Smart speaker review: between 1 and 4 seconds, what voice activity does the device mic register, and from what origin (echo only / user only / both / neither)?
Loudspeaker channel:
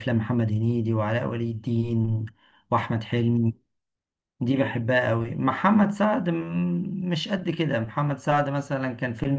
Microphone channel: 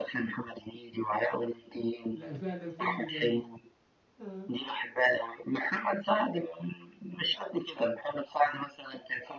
both